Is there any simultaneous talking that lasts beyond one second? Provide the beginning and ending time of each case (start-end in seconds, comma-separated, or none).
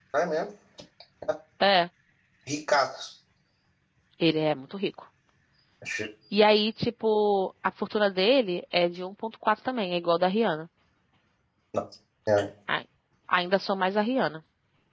none